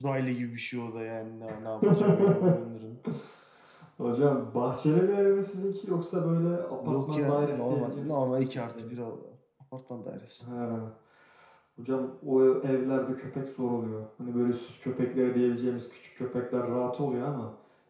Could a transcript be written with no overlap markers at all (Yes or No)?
No